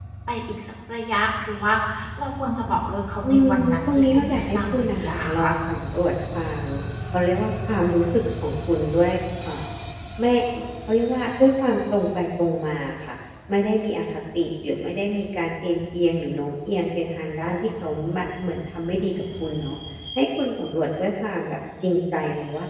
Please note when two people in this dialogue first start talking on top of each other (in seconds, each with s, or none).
3.2 s